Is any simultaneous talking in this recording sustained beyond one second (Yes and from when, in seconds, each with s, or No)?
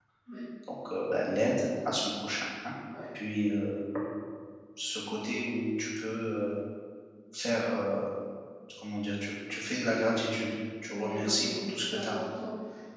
Yes, from 10.9 s